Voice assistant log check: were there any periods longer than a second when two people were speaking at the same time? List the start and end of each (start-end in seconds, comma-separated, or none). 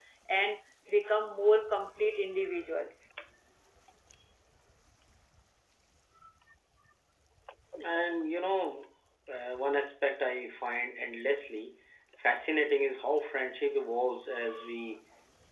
none